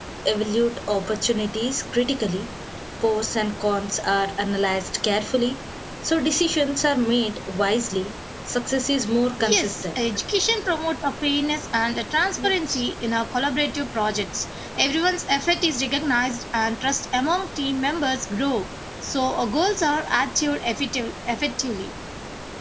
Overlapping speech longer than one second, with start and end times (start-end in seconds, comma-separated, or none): none